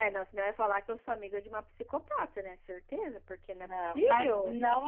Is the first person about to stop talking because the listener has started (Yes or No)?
Yes